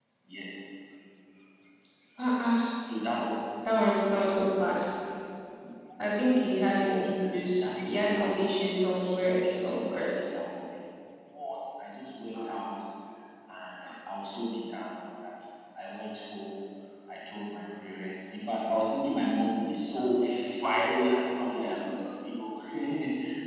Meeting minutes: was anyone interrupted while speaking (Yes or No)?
Yes